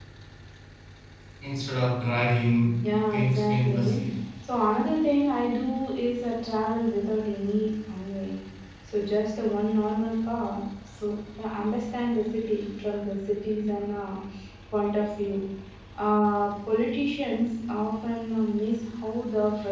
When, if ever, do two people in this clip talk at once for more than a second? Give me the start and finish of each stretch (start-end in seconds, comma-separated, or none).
2.8-4.0